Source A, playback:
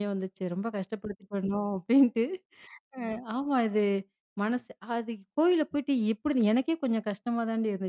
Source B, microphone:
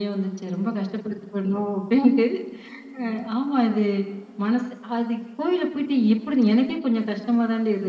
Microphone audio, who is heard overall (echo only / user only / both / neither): echo only